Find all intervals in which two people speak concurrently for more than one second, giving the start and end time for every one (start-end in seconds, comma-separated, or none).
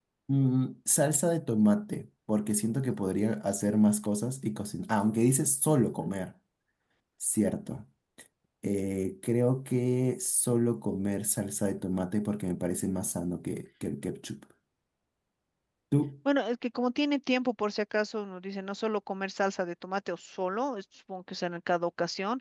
none